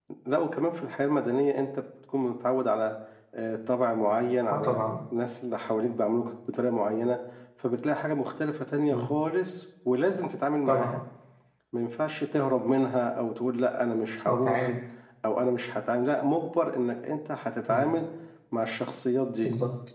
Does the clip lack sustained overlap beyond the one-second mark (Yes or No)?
Yes